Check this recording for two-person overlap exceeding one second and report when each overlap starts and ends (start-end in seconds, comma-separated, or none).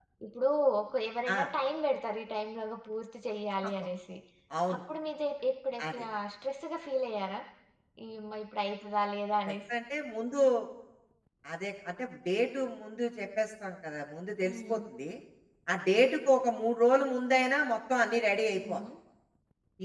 none